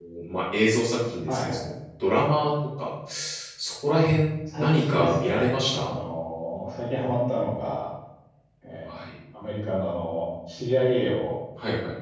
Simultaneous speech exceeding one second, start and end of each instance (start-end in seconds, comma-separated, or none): 4.6-6.0